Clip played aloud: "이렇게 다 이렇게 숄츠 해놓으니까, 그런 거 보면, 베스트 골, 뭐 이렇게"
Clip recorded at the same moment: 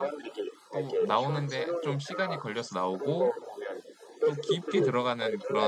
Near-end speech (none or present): present